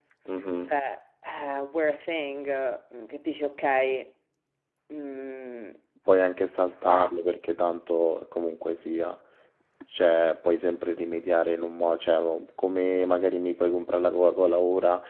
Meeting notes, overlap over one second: none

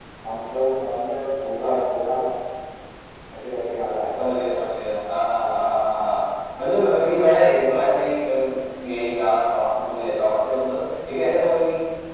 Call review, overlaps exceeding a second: none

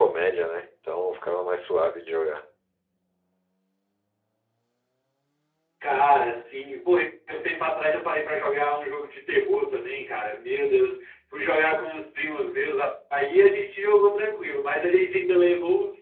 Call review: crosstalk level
none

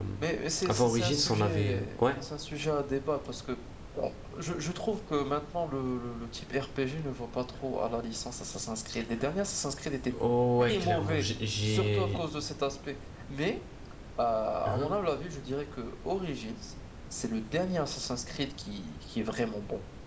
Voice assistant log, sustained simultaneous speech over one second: present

